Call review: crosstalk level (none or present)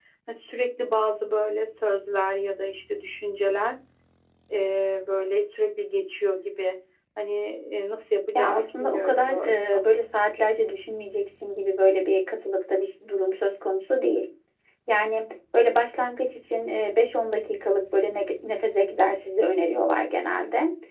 present